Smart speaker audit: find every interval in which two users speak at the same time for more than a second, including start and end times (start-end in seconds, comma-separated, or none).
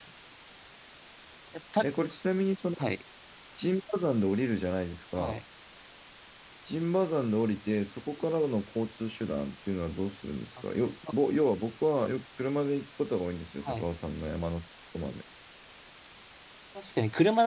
none